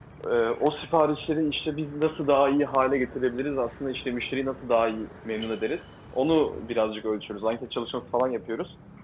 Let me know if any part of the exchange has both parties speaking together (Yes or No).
No